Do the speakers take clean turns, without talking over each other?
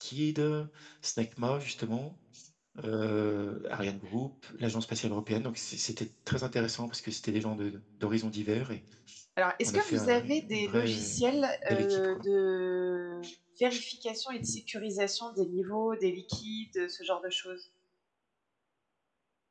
No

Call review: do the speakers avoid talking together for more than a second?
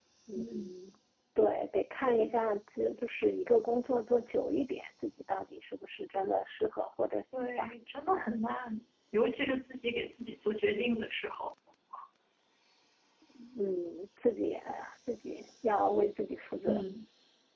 Yes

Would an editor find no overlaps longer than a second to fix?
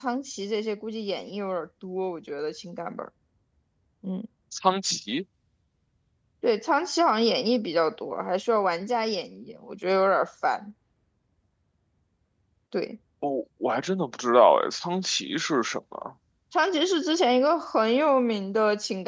Yes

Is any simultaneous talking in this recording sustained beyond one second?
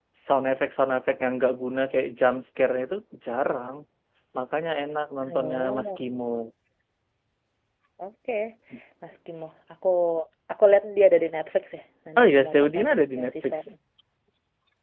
Yes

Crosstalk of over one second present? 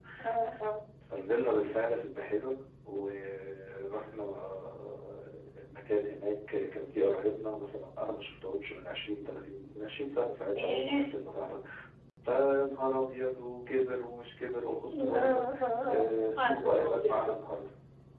Yes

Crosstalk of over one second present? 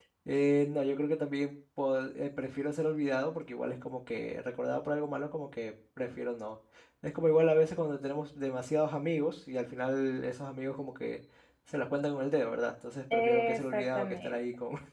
Yes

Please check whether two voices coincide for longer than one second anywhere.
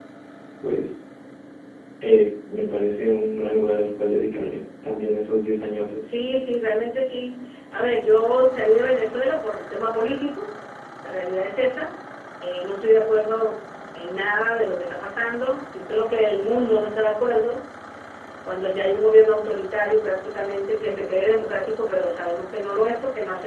No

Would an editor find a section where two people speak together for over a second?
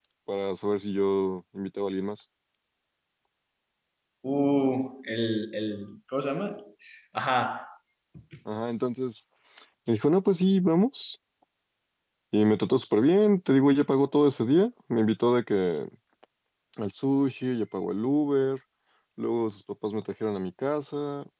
No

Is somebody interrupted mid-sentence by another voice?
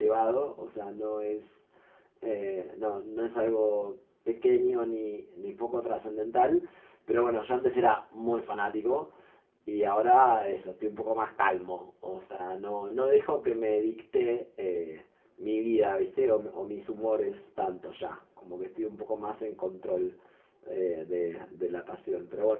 No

